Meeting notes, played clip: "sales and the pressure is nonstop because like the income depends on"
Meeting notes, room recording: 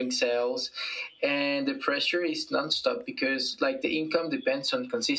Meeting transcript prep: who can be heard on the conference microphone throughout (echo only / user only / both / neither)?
echo only